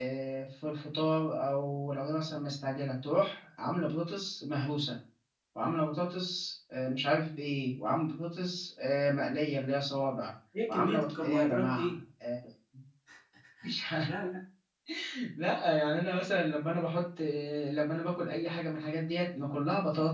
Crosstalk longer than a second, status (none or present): present